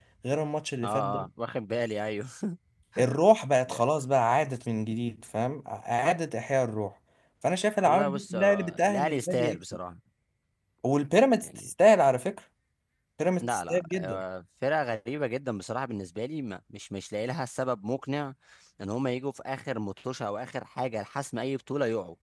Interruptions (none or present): present